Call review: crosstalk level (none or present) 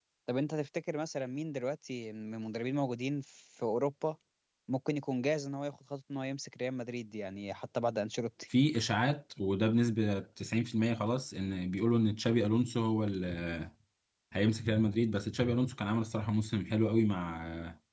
none